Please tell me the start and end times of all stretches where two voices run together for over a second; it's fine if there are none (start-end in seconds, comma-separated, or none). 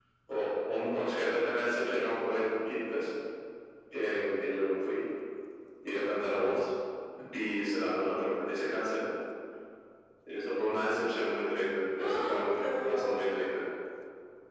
12.0-13.4